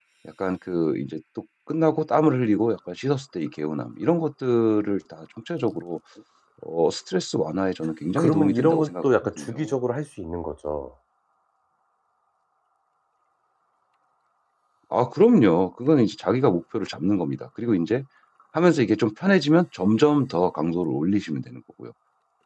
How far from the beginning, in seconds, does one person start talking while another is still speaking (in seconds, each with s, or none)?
8.2 s